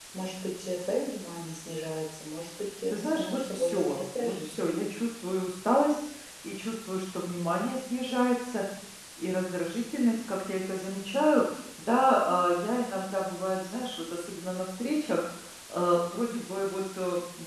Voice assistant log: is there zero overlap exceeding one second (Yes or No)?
No